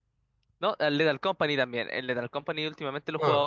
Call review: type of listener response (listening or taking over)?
listening